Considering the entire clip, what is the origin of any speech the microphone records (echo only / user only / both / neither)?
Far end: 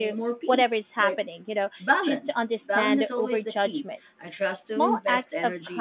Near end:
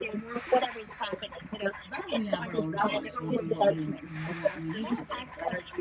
both